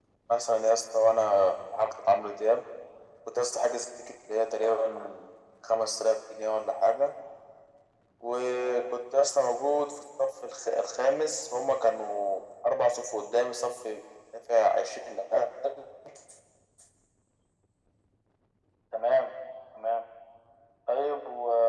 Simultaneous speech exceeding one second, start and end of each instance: none

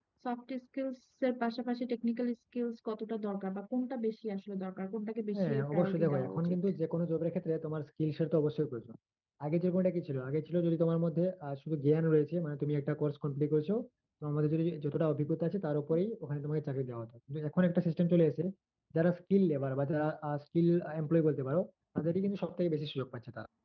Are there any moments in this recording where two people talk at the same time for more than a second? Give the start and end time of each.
5.3-6.6

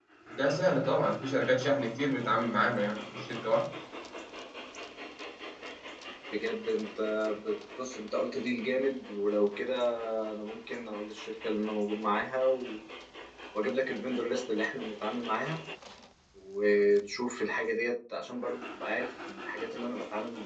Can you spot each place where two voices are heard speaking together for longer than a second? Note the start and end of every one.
none

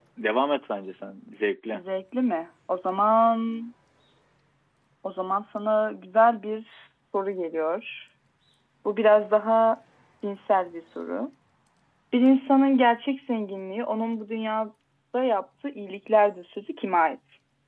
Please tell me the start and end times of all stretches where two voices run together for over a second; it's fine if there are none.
none

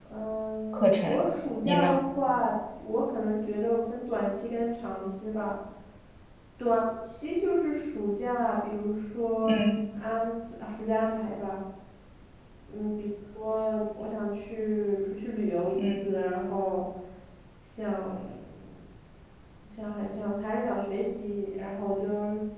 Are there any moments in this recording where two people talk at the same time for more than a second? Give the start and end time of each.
none

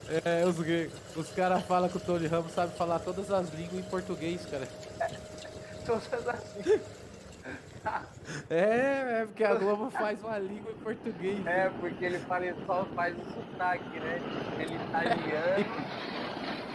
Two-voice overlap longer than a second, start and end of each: none

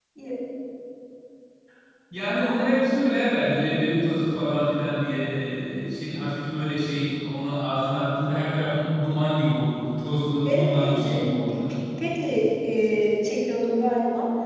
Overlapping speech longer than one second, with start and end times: 10.4-11.8

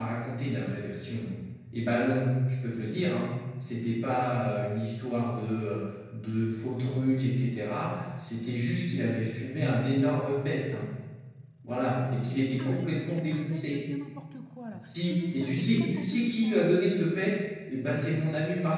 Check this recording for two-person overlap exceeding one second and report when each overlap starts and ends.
12.0-13.9, 15.1-16.6

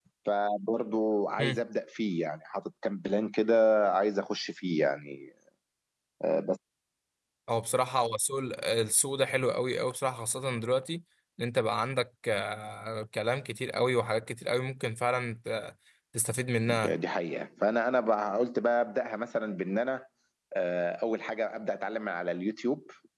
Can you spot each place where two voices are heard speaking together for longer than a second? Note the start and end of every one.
none

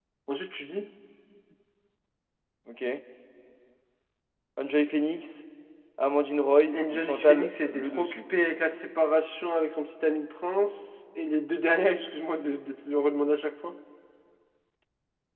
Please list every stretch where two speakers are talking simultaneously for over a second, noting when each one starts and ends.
6.7-8.3

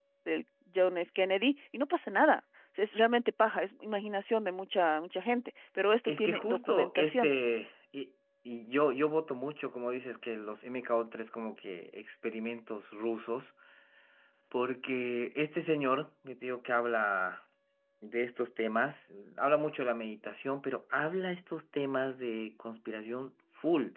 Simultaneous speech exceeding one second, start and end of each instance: 6.1-7.3

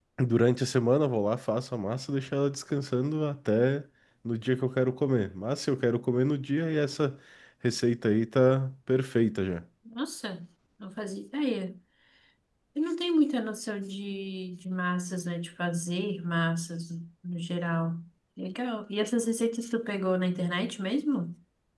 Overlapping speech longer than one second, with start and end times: none

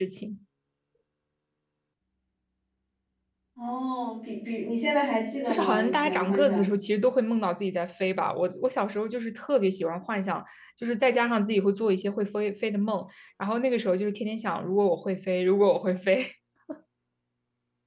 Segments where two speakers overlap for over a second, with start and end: 5.5-6.7

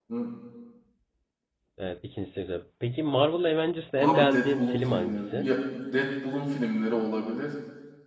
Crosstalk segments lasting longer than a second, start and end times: 4.0-5.5

